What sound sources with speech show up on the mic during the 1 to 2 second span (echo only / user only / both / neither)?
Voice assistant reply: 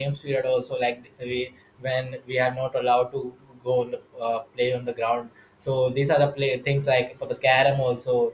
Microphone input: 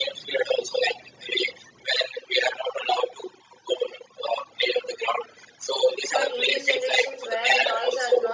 echo only